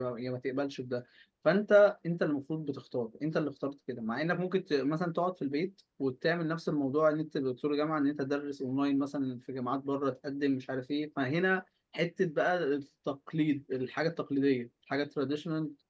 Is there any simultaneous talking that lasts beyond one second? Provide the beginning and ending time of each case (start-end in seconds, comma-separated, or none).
none